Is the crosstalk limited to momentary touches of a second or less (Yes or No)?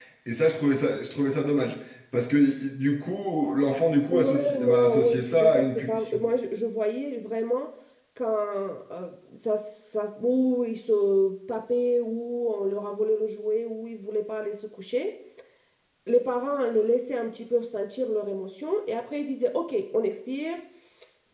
No